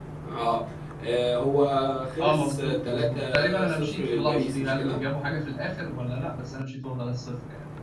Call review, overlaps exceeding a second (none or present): present